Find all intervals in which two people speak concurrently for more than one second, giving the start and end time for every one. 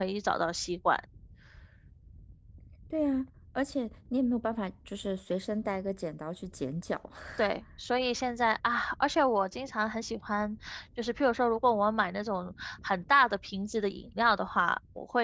none

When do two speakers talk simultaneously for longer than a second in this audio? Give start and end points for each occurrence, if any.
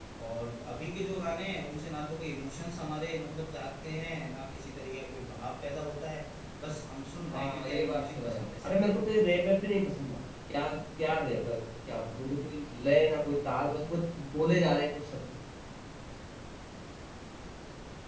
7.3-8.9

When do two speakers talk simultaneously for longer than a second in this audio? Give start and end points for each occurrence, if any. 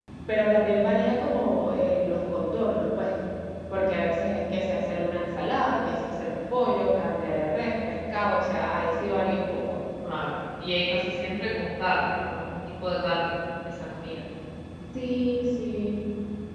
none

